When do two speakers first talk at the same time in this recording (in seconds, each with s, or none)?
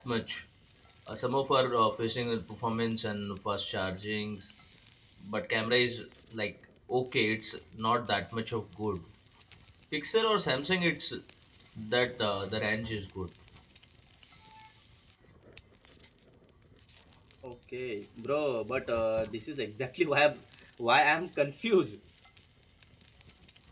none